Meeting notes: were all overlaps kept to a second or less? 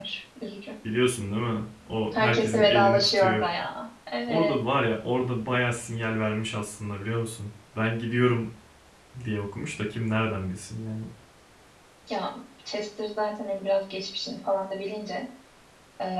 No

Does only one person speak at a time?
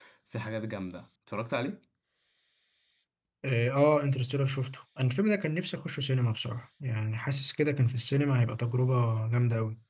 Yes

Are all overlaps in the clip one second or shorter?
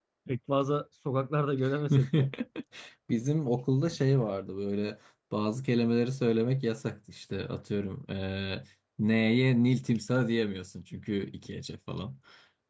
Yes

